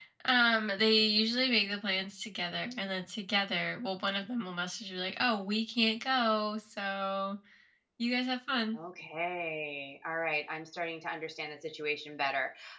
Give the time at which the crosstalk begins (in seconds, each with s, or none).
none